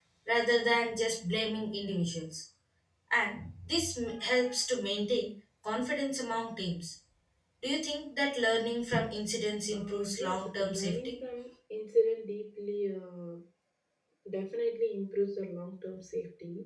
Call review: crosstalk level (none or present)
present